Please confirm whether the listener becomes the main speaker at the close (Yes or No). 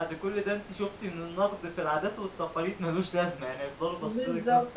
Yes